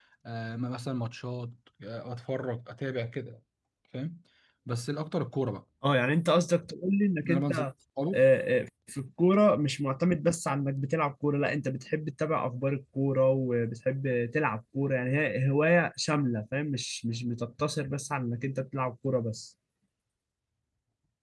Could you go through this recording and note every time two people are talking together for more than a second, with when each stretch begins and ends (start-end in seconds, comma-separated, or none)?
none